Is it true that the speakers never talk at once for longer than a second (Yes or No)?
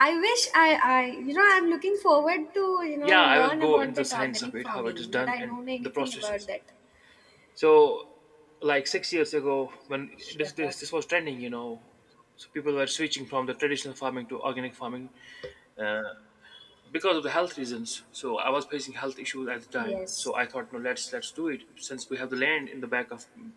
No